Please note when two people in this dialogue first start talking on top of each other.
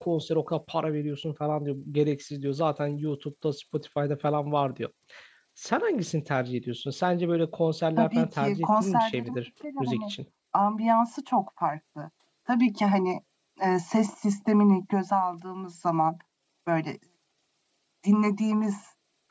8 s

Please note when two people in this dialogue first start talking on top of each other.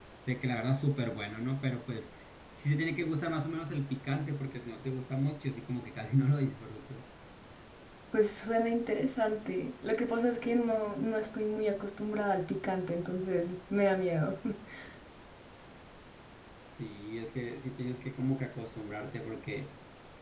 none

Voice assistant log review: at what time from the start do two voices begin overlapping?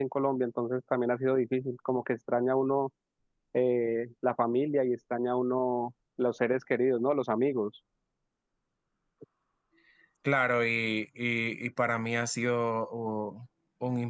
none

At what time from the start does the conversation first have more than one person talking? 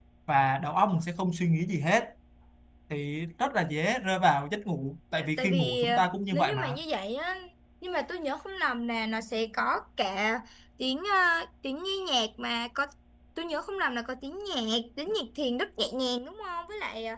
5 s

